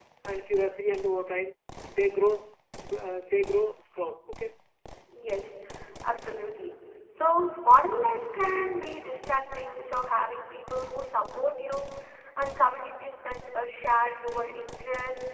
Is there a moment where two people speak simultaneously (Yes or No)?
No